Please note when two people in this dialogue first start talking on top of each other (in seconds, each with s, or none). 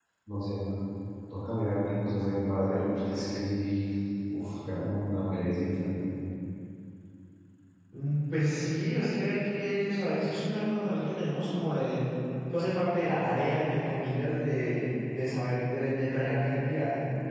none